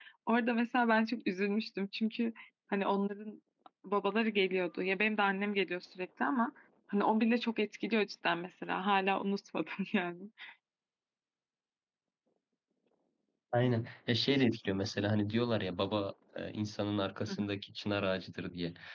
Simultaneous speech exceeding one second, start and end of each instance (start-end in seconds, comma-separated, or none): none